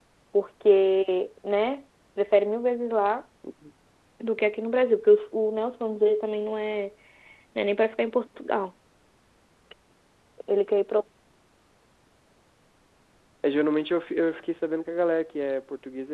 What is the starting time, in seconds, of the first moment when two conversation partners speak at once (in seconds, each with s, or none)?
none